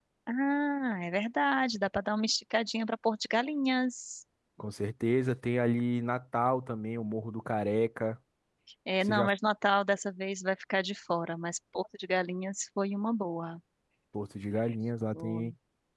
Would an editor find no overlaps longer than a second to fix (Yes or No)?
Yes